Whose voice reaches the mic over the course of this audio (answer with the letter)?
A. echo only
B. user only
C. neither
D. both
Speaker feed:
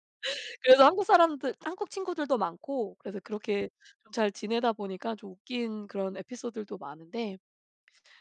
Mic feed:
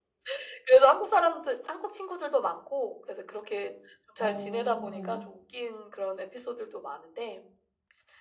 D